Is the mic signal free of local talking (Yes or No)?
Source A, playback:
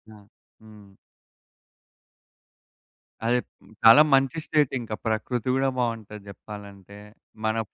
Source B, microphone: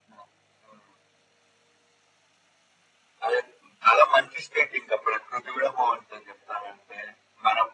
Yes